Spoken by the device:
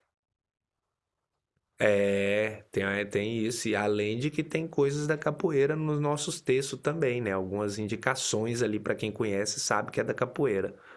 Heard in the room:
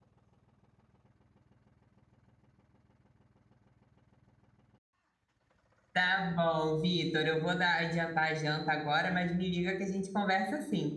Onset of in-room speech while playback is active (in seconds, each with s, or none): 5.9 s